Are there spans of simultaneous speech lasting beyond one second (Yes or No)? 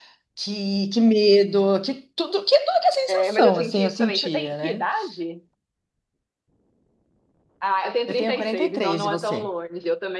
Yes